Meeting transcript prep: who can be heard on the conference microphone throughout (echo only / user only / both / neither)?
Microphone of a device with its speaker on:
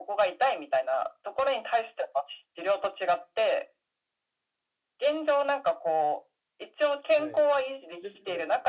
both